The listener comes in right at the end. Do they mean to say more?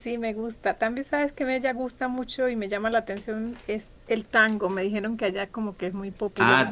Yes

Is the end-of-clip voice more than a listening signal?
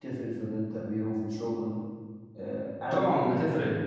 Yes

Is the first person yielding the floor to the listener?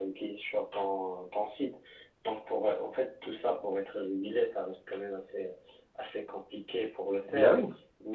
No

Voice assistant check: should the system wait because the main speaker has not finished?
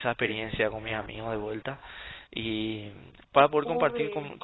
Yes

